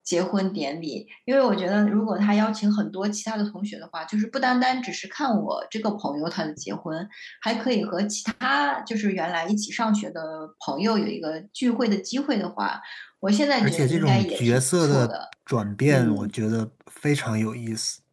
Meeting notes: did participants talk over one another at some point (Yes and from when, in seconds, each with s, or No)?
Yes, from 13.6 s